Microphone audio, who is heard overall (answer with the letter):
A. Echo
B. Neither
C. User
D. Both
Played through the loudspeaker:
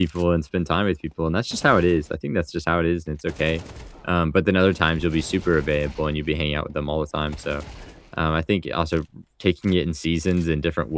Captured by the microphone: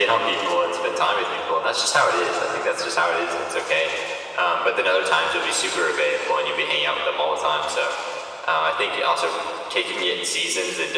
A